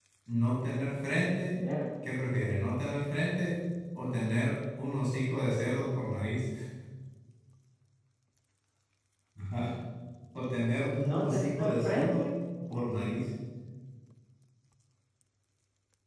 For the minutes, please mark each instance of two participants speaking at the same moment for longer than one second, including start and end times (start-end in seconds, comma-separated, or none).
10.9-12.3